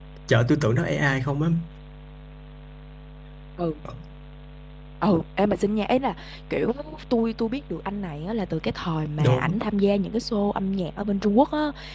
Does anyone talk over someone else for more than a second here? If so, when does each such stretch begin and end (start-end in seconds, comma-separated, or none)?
none